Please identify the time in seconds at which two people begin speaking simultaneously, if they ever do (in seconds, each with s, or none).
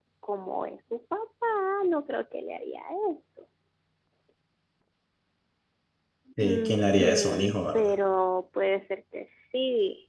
6.4 s